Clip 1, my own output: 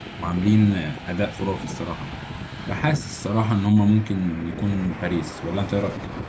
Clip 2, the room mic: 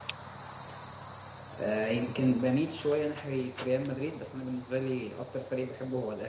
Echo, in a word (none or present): none